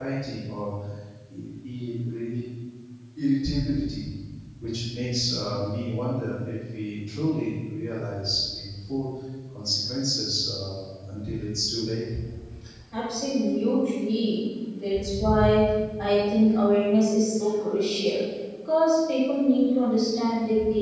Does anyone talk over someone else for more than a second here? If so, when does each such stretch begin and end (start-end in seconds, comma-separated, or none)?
none